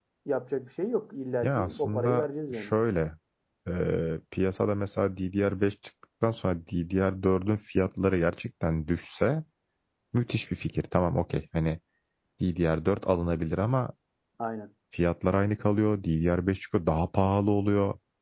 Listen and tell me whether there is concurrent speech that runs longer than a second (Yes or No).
Yes